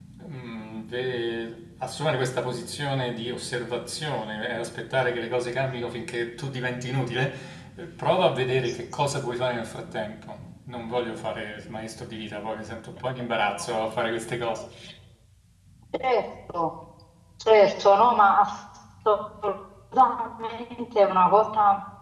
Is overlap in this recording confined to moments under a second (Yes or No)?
Yes